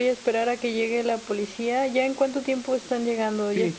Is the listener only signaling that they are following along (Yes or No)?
No